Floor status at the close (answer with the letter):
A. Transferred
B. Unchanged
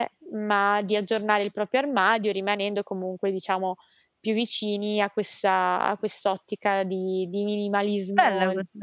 A